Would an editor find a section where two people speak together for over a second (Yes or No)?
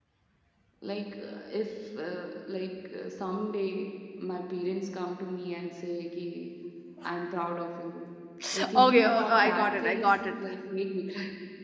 Yes